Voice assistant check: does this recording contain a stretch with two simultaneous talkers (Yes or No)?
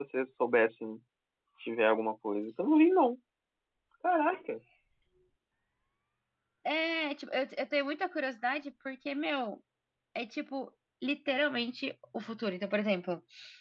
No